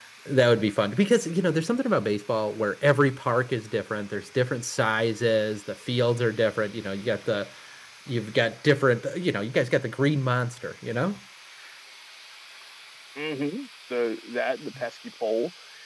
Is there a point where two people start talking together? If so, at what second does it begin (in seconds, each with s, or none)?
none